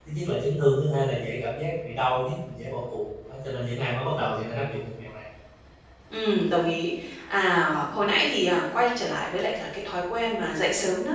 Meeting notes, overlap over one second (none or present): none